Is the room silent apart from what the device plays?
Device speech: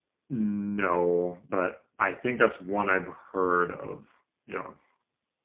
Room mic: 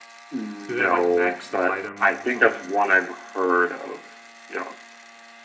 No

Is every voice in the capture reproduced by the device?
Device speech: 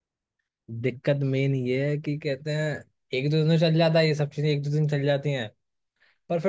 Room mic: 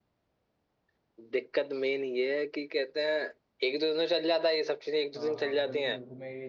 No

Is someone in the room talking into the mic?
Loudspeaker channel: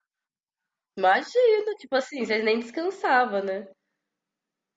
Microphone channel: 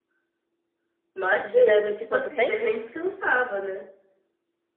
Yes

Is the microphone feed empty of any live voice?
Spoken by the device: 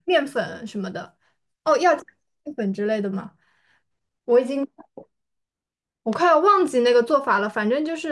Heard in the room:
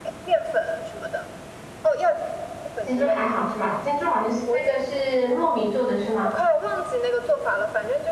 No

